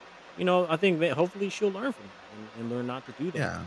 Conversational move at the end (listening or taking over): listening